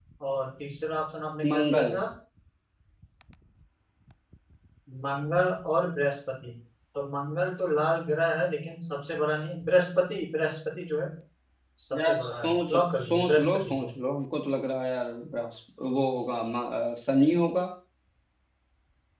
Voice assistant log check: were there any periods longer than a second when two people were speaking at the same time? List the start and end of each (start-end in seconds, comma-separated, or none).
11.9-13.9